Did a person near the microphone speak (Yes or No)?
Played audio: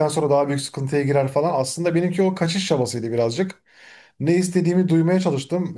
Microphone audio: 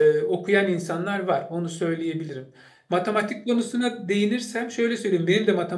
Yes